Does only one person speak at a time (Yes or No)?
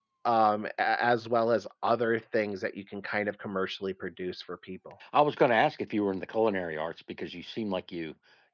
Yes